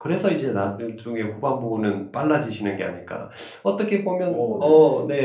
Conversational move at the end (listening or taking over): listening